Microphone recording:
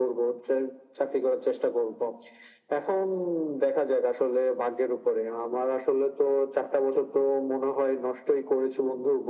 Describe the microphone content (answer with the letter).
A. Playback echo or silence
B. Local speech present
A